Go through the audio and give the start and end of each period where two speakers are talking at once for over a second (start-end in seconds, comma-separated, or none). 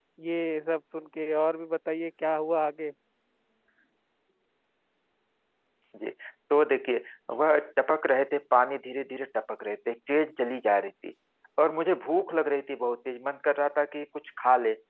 none